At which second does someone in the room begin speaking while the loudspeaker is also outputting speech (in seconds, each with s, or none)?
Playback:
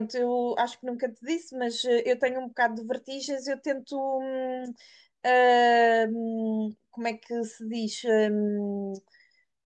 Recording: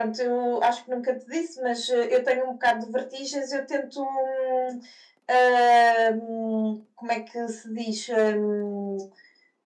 none